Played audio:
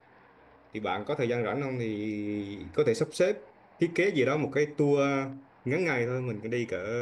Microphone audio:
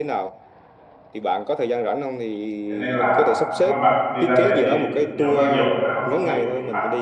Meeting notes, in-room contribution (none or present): present